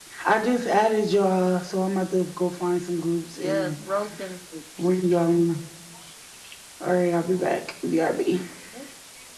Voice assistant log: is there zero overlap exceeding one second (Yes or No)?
Yes